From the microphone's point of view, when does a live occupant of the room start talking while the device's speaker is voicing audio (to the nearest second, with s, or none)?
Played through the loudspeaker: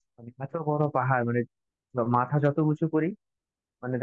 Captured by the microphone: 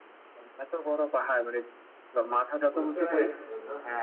3 s